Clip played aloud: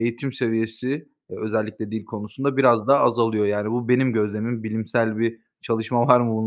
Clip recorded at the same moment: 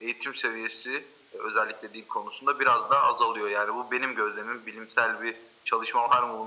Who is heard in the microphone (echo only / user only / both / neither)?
echo only